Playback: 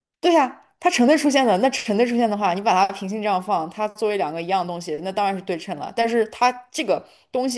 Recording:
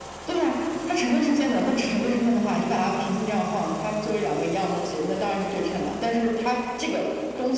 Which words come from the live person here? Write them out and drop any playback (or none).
none